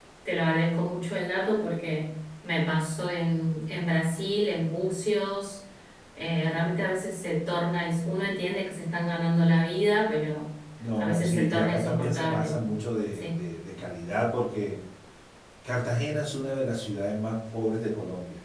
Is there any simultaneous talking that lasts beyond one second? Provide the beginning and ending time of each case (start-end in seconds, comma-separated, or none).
11.0-12.6